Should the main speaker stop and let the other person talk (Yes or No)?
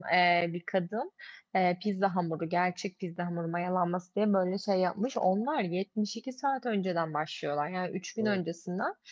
No